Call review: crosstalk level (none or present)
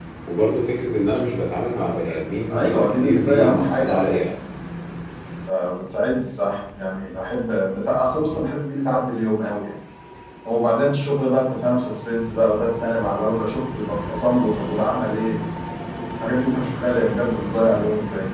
present